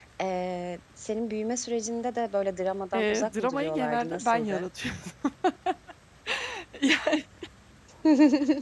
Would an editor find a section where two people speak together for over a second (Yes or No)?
Yes